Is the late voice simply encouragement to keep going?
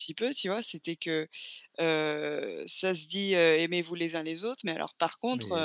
Yes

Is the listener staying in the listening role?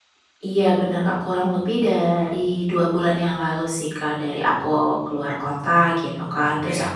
Yes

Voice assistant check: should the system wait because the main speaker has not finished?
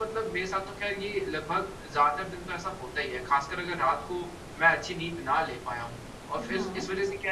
Yes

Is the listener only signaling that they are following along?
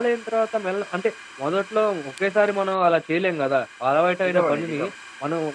Yes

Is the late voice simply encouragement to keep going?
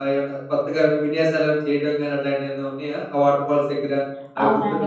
No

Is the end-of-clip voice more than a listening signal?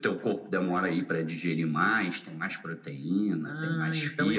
Yes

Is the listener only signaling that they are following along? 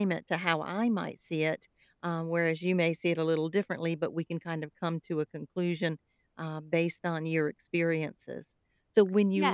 Yes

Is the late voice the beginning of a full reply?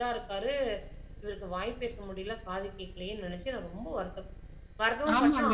Yes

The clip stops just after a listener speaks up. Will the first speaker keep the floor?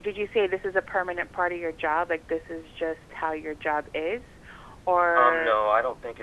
No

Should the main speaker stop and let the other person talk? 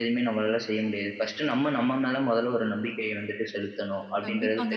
Yes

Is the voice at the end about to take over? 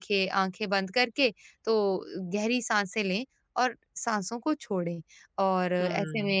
No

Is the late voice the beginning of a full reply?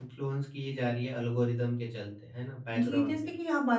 Yes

